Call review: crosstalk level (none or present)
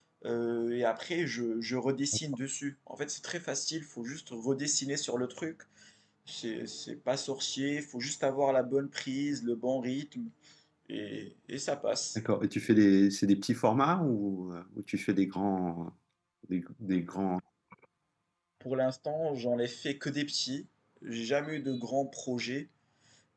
none